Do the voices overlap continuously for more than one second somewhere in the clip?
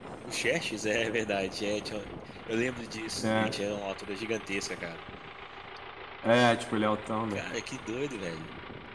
No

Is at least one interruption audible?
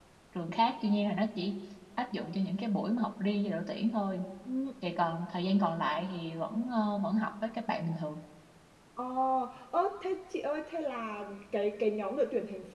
No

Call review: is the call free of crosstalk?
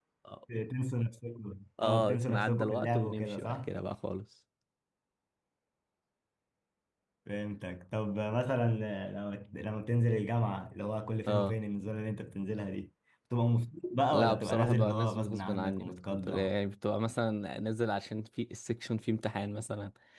No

